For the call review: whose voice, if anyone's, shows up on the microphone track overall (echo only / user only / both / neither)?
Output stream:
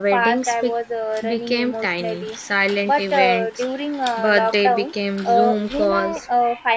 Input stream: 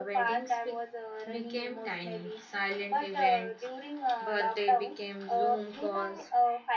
echo only